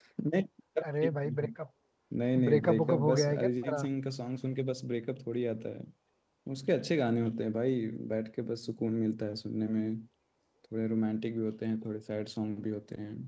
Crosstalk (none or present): present